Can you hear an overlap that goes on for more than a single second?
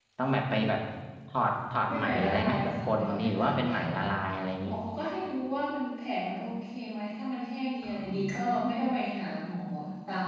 Yes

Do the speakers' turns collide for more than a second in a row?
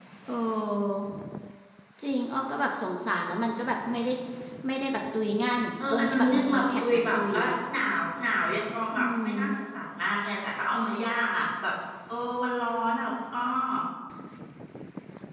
Yes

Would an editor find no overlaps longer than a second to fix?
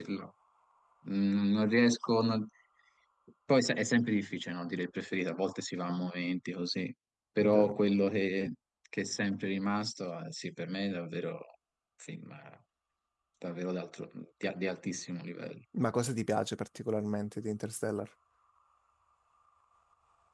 Yes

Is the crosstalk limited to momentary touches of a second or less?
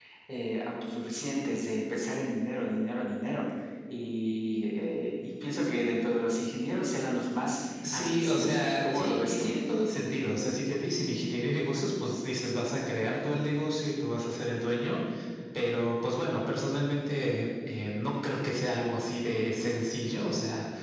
No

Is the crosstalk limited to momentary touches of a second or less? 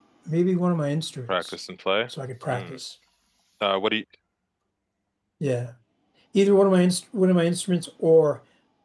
Yes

